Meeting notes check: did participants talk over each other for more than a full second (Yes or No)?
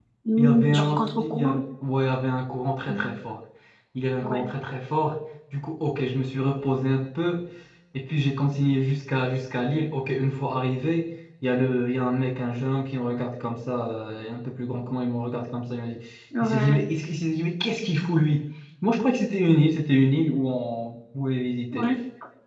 Yes